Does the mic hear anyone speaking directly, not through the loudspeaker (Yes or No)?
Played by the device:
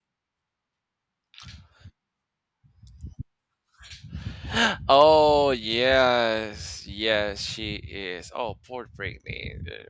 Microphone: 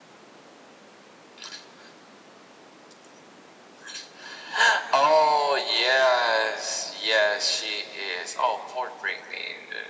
No